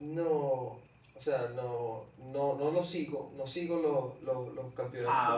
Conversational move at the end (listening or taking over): listening